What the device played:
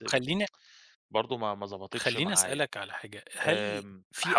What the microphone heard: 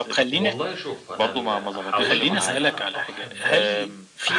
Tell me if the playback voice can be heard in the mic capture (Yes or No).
Yes